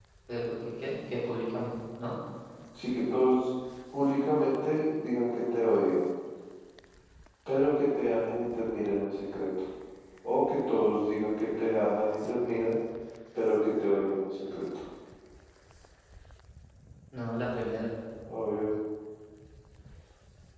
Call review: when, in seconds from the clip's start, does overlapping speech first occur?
none

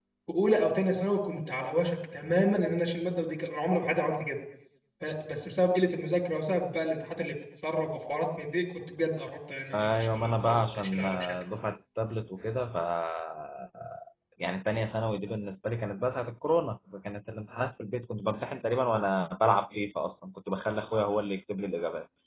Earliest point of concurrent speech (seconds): 9.7 s

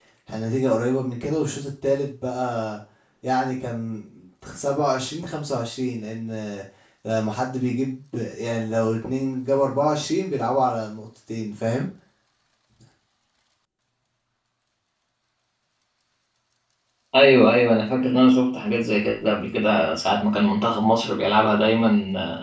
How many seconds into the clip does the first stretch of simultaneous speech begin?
none

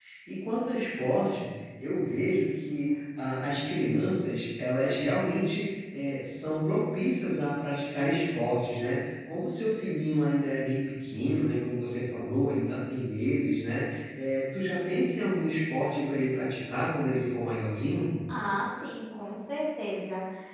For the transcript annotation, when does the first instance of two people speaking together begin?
none

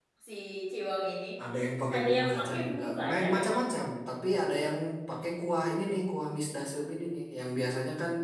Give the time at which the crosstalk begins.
1.9 s

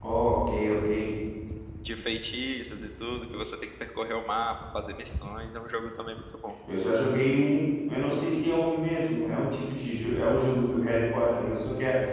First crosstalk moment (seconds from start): none

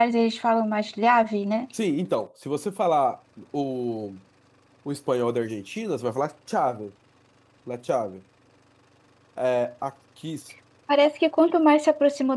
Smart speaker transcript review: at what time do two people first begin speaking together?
none

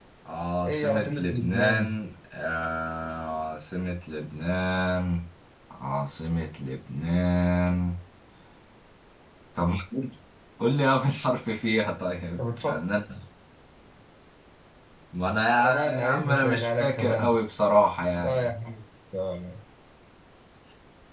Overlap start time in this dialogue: 0.7 s

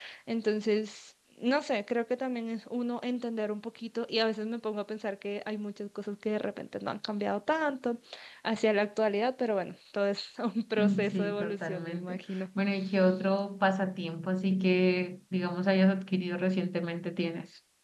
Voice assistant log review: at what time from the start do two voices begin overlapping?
10.8 s

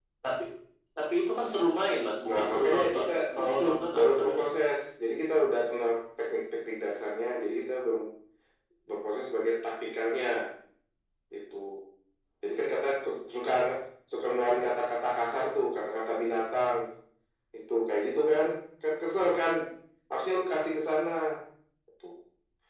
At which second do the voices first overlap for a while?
2.3 s

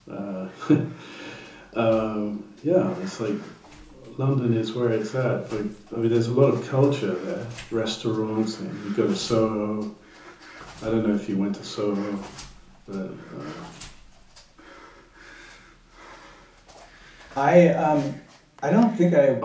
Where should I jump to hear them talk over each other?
none

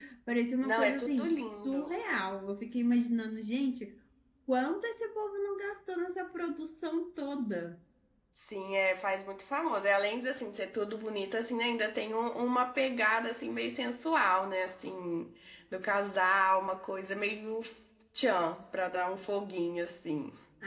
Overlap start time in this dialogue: 0.6 s

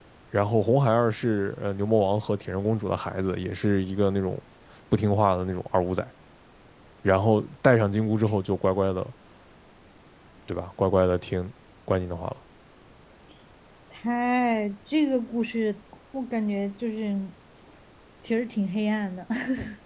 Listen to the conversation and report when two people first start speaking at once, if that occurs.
none

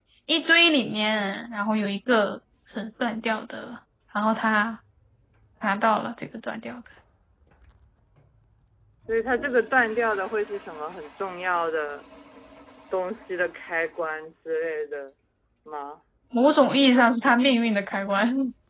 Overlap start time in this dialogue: none

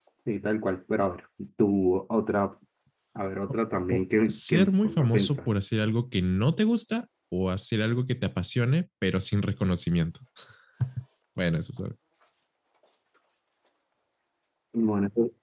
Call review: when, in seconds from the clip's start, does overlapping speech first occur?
3.5 s

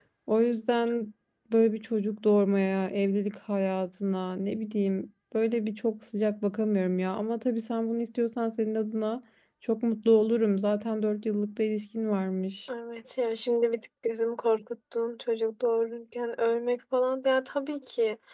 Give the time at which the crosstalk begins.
none

